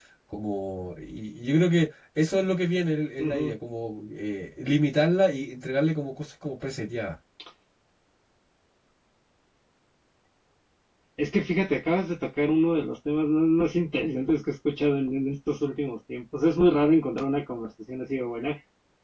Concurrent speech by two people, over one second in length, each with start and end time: none

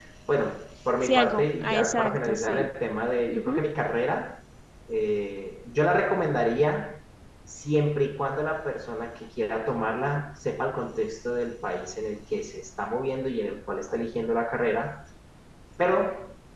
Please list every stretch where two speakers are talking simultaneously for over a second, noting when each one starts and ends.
1.0-2.7

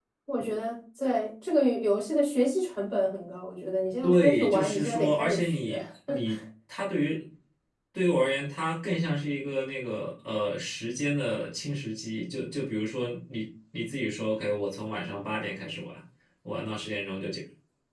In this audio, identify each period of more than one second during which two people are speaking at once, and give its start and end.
4.0-5.8

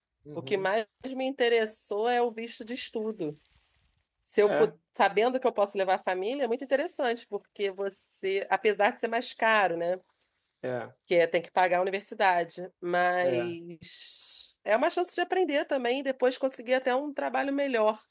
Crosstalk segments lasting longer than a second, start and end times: none

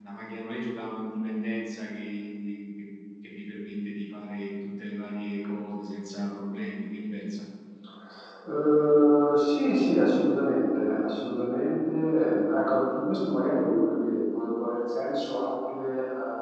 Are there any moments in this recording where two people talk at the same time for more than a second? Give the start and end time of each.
none

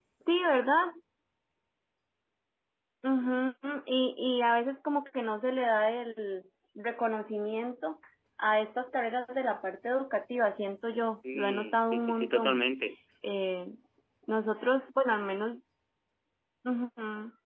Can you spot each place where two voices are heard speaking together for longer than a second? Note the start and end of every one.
11.3-12.6

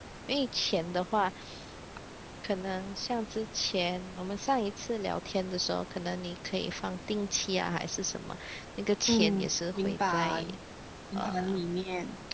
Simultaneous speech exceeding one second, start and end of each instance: 9.1-10.3

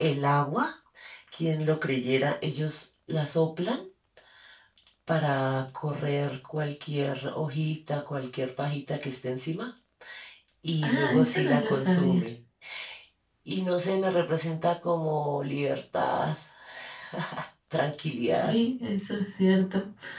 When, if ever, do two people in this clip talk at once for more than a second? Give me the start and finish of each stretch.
10.8-12.2

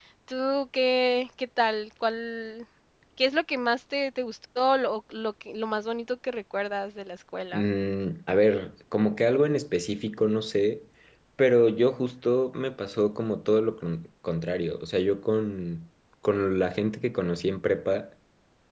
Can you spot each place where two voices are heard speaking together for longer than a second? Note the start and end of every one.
none

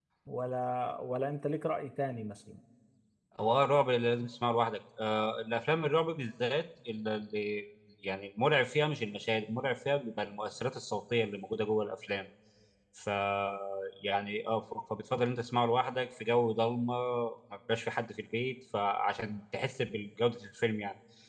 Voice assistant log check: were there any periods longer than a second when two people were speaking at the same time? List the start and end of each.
none

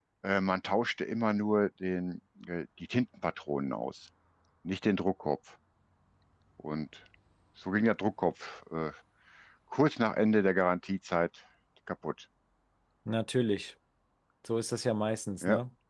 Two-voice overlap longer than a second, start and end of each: none

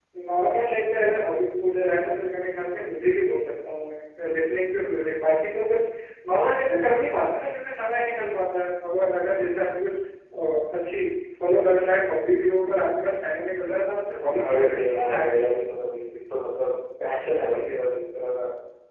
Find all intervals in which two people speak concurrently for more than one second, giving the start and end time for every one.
14.2-15.5

